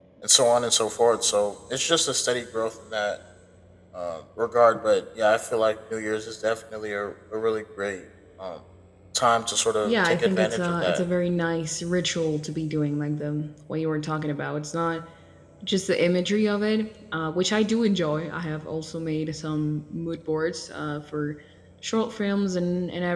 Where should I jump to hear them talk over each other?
9.8 s

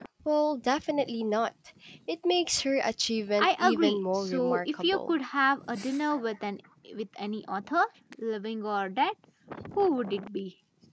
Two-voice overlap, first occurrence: 3.4 s

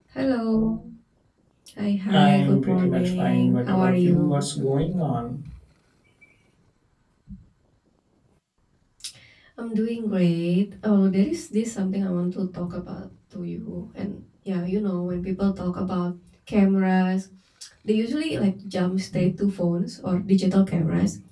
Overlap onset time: 2.1 s

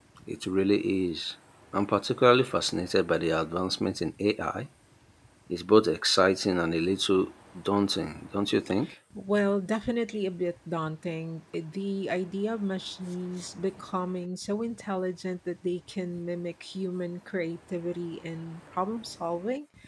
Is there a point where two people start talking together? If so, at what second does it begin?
none

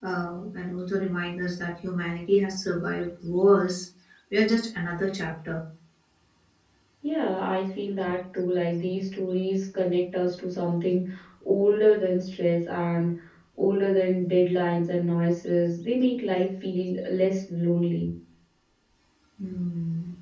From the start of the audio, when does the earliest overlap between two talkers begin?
none

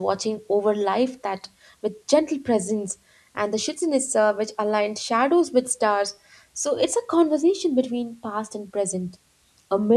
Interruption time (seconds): none

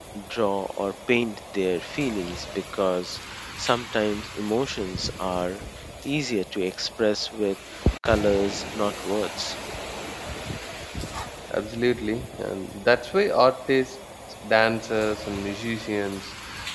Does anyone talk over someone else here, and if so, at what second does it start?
none

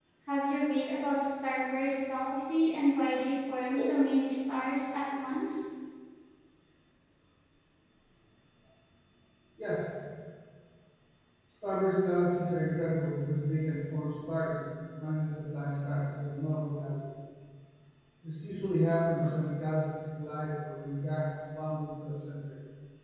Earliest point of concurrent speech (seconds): none

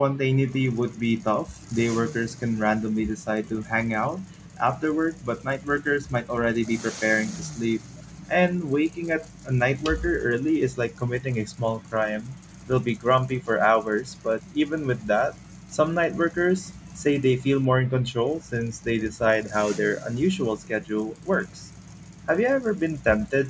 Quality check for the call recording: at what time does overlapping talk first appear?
none

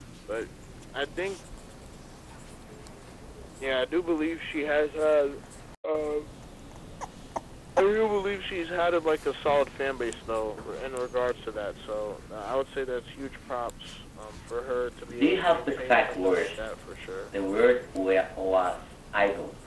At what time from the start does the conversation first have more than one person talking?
15.1 s

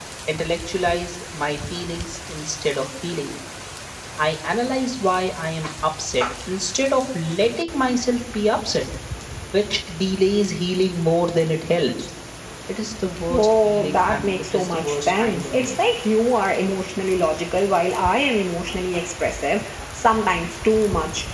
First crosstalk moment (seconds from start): 13.3 s

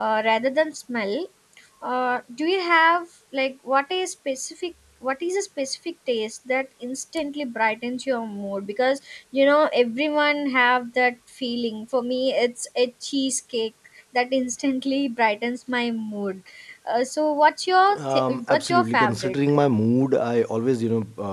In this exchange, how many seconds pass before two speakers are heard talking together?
17.9 s

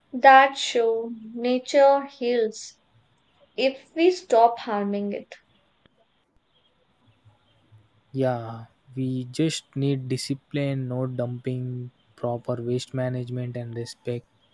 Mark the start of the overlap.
none

